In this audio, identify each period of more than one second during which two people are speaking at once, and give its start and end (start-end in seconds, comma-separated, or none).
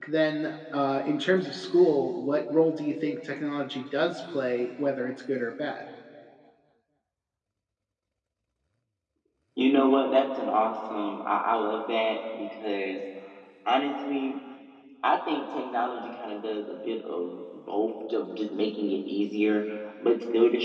none